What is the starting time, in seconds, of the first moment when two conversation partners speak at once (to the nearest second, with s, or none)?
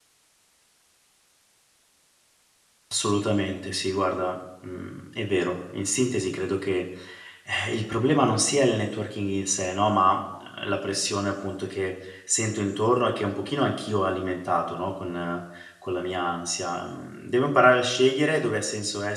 none